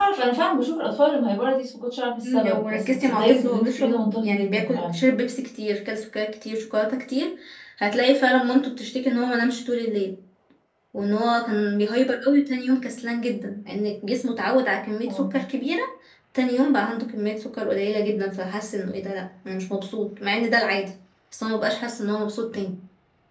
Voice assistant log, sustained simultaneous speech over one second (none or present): present